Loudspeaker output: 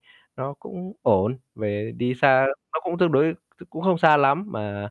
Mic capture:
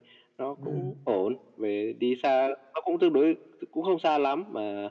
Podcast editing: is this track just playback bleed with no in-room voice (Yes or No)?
No